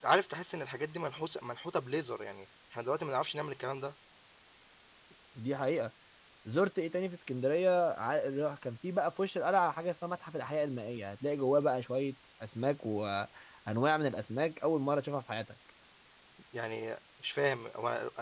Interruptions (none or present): none